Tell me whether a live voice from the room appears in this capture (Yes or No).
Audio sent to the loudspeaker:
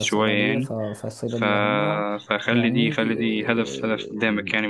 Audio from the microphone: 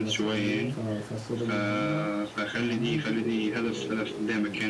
No